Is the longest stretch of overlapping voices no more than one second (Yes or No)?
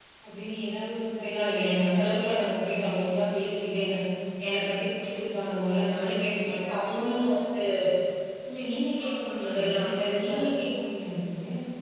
No